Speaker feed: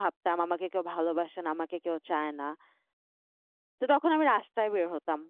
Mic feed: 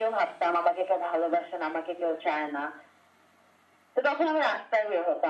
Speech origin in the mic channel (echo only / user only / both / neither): echo only